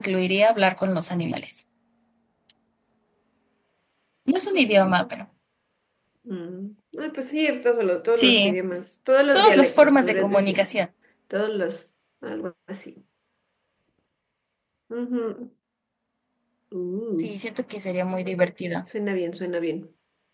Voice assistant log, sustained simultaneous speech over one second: present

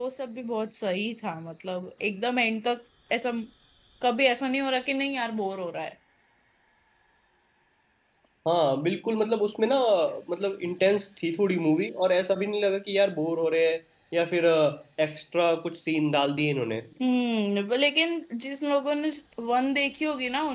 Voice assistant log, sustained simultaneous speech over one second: none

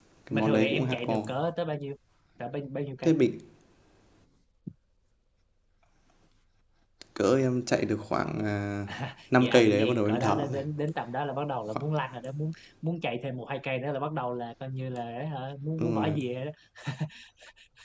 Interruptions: present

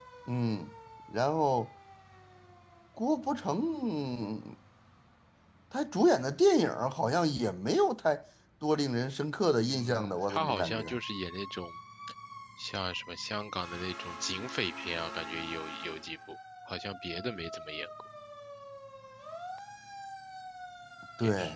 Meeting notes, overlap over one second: present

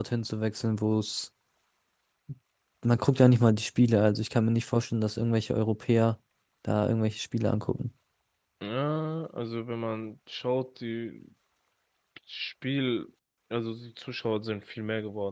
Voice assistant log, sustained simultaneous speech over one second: none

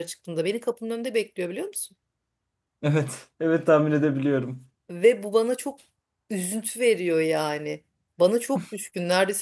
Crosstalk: none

